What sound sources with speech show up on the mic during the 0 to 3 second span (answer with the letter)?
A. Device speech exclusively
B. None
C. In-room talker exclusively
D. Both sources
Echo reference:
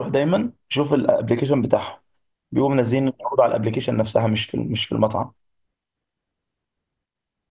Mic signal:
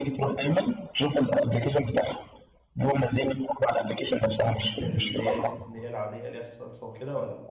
A